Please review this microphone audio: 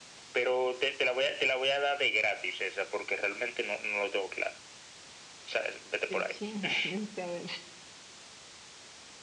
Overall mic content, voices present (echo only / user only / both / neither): both